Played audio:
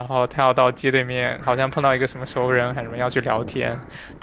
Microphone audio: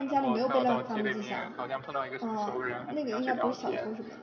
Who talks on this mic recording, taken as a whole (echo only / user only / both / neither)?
both